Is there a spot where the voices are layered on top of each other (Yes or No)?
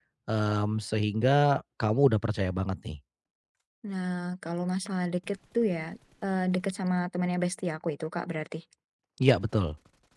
No